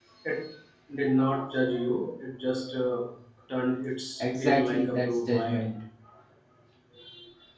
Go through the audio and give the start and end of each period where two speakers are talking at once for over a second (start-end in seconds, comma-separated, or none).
4.2-5.6